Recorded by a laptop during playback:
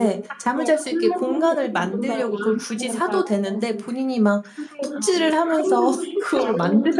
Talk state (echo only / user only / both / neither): both